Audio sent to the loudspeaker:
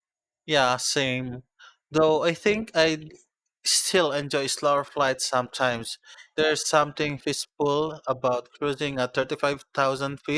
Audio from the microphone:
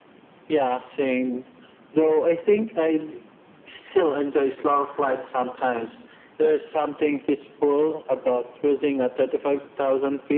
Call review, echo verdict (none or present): present